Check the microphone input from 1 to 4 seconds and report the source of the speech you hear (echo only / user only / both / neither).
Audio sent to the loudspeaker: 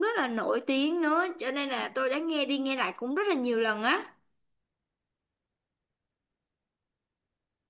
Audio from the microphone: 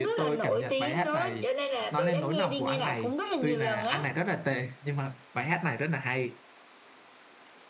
both